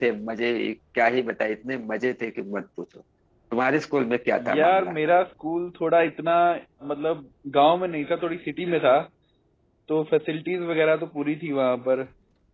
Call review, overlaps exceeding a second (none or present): none